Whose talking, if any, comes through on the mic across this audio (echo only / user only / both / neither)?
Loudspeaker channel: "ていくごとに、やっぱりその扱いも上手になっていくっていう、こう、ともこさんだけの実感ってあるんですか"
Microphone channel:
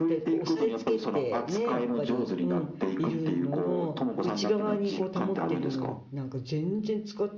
both